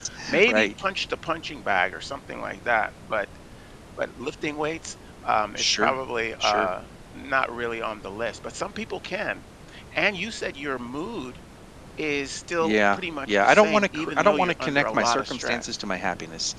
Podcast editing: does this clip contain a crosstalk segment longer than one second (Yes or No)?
Yes